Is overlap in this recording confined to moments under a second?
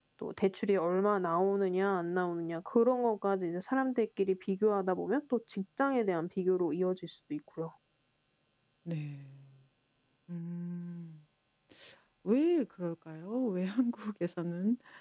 Yes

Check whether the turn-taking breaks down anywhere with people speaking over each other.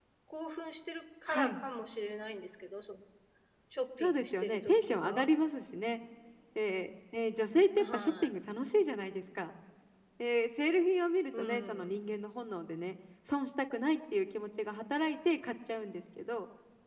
Yes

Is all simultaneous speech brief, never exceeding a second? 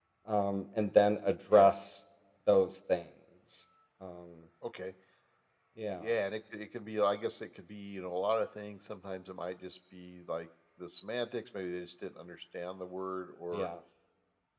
Yes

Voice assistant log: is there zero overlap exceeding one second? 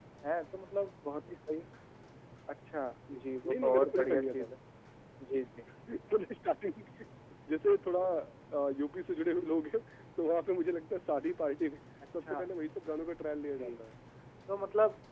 No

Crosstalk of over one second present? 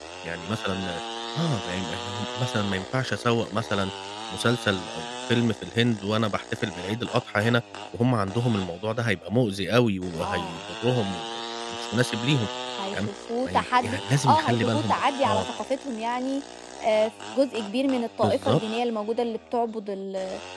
Yes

